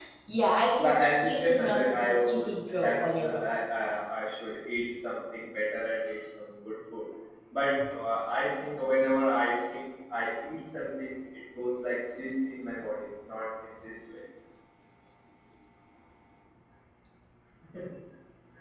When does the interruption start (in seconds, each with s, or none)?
0.8 s